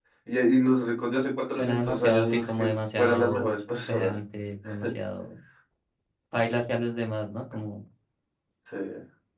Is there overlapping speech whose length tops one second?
Yes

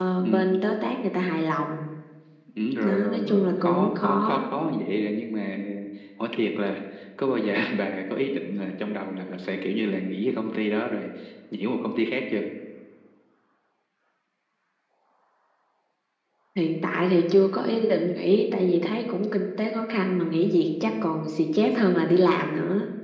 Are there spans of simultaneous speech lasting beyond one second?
Yes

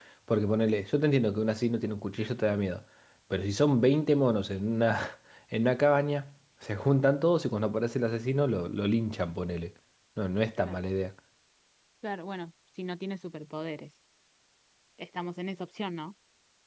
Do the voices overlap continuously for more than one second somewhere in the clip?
No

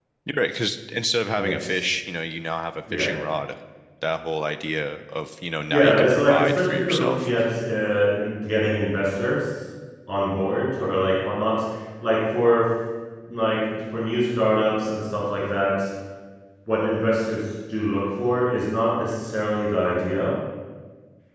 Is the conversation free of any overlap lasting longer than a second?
No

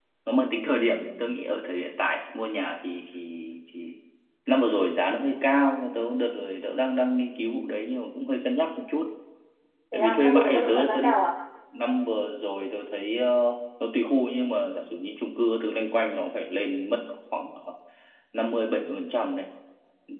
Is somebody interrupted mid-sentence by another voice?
Yes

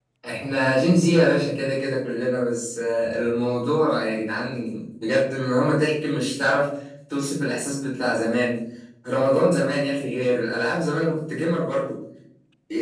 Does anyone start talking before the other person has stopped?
No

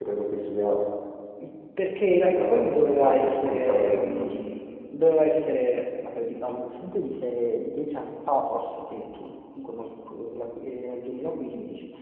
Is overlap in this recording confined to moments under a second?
No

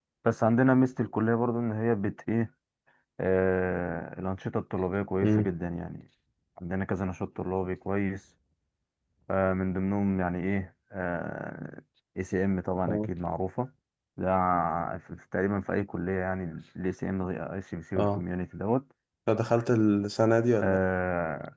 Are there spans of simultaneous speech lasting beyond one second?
No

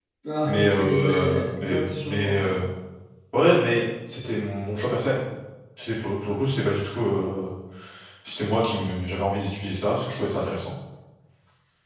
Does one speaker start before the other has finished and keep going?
Yes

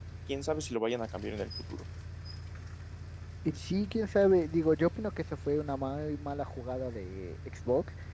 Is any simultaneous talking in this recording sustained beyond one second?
No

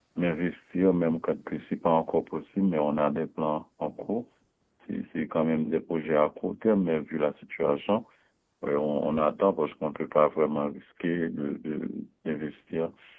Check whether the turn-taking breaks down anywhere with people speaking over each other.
No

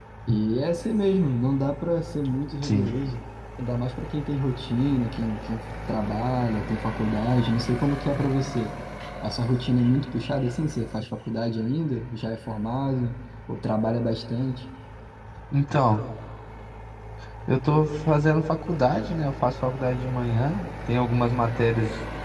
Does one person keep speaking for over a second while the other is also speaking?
No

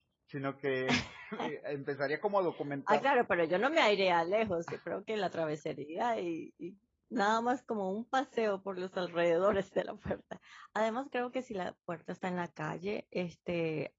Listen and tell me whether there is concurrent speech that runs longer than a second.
No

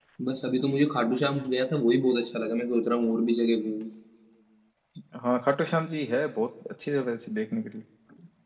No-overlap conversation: Yes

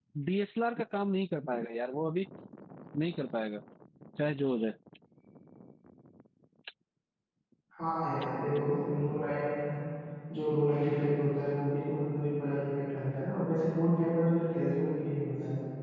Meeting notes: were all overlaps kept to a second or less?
Yes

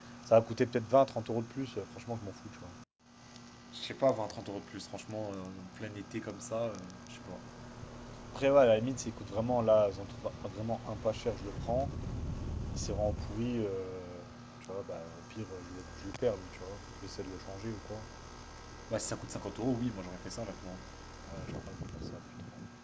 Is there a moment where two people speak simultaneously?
No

